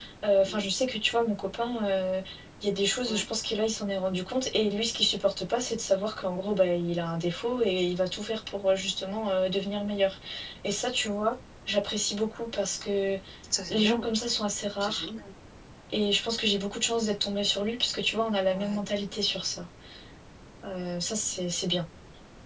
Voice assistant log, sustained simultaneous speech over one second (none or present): none